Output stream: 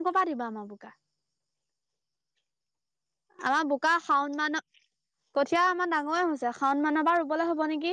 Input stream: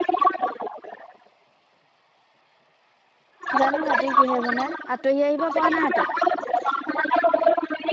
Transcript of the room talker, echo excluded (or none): জানো ৰাতি কিহে বনাই, আঁতহি আহিব পৰা নাই তই।